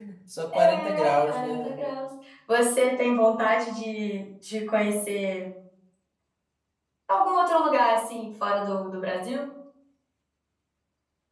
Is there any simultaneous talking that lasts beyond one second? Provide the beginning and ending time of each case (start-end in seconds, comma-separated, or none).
0.5-1.8